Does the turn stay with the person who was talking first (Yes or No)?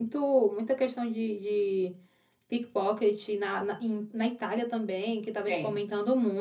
Yes